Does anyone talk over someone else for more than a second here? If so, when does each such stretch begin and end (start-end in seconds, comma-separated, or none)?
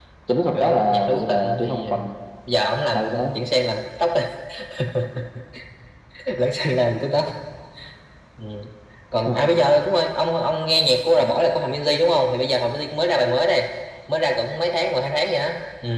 0.6-1.9